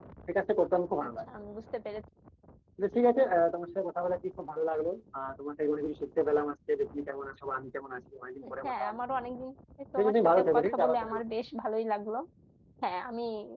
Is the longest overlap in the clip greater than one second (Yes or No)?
Yes